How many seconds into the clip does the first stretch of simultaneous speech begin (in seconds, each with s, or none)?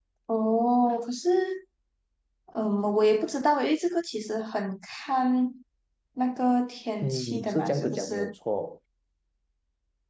7.0 s